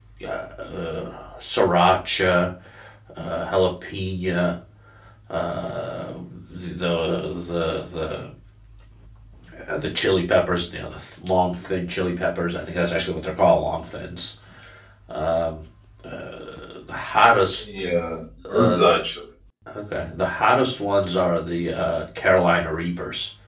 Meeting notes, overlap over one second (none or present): none